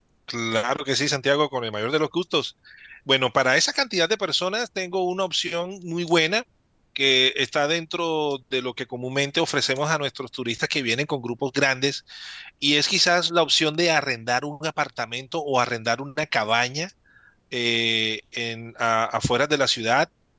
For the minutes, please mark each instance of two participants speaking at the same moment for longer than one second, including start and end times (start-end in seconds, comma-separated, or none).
none